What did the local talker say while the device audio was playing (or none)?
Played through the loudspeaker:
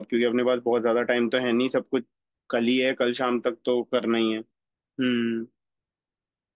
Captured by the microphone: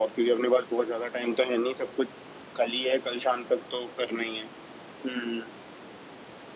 none